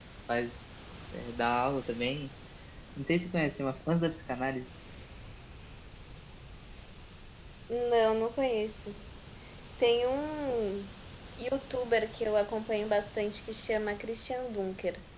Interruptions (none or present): none